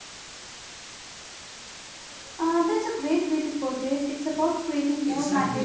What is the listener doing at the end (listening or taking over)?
taking over